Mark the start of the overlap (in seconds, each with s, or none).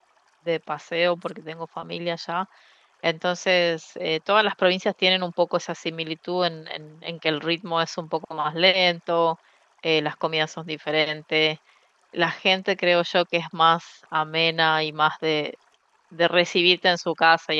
none